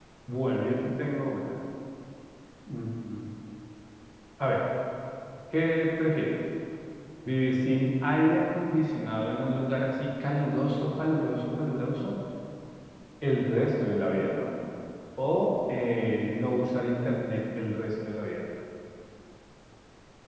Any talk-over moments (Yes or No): No